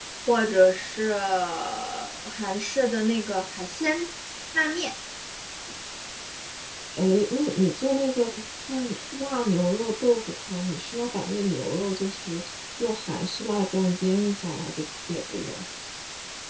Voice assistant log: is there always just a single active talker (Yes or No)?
Yes